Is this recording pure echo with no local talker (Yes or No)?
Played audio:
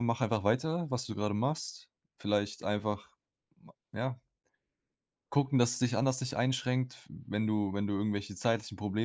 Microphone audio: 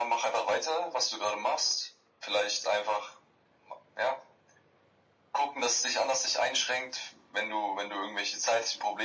Yes